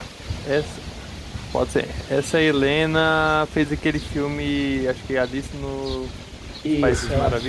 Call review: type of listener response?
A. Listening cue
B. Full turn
B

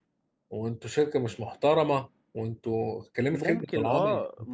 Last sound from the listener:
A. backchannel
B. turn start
B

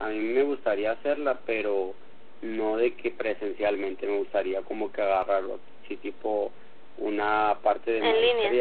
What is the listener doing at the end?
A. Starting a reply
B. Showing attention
B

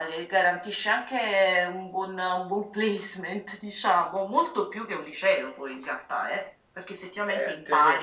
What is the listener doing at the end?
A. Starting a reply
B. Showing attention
A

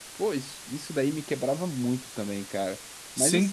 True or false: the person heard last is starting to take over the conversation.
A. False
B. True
B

